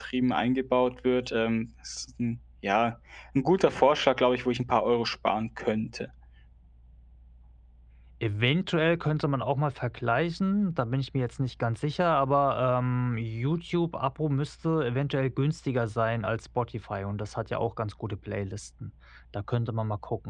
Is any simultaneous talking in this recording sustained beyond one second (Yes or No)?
No